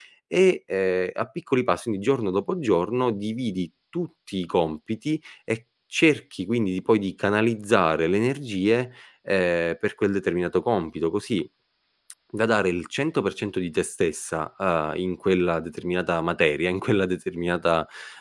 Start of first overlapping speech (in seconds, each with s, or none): none